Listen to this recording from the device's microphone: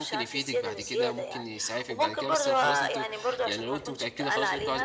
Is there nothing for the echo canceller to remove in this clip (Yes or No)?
No